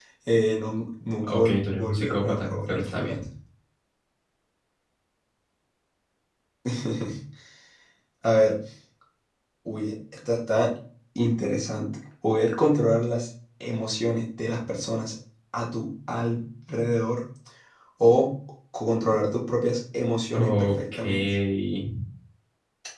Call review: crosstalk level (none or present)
present